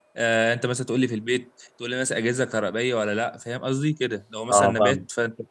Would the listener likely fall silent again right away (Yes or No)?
Yes